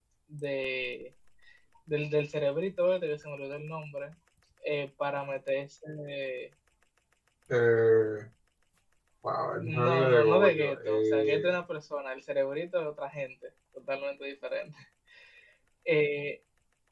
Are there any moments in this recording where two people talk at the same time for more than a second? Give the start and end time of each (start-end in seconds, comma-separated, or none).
9.6-11.5